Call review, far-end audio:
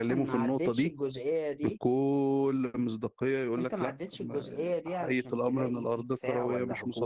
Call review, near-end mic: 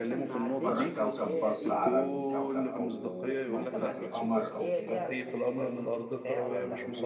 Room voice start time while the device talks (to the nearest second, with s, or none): 1 s